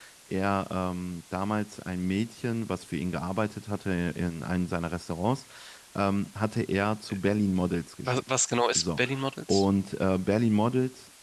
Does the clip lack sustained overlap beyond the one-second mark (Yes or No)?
Yes